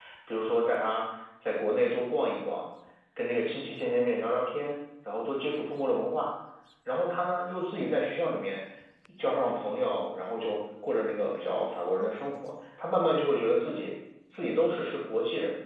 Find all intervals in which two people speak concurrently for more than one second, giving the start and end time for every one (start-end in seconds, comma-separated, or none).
none